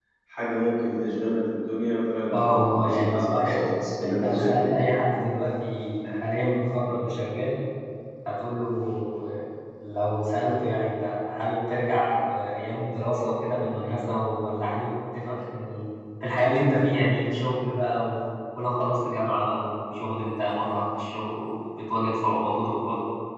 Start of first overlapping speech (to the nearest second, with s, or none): 2 s